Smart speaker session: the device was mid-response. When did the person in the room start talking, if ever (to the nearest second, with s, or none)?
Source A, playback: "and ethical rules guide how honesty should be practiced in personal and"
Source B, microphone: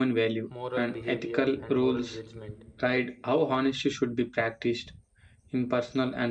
0 s